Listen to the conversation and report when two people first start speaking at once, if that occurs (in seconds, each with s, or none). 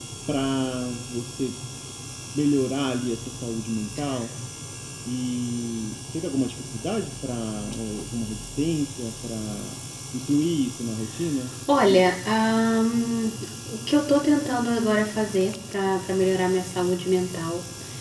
none